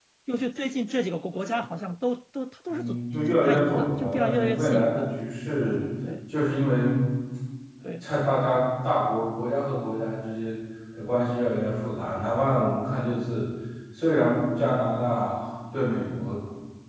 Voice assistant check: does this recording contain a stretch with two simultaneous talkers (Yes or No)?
Yes